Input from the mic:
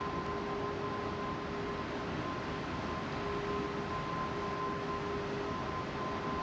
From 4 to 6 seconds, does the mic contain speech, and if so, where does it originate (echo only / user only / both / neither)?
neither